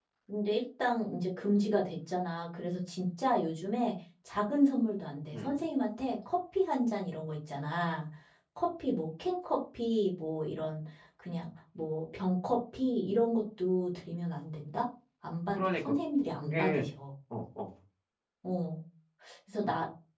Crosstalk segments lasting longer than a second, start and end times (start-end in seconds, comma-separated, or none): none